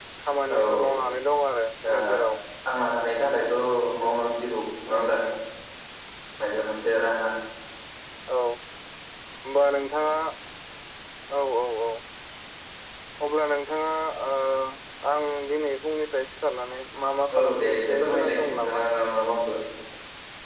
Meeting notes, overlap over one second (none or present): present